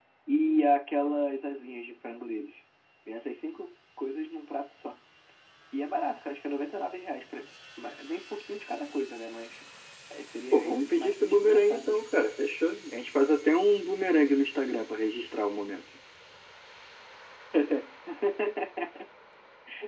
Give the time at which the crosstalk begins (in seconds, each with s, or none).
10.5 s